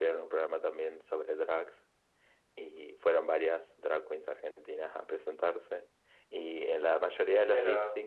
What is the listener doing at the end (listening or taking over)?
listening